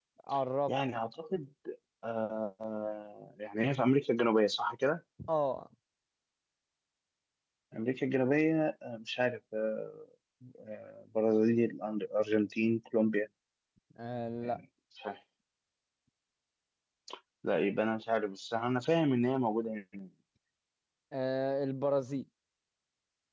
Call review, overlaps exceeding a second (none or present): none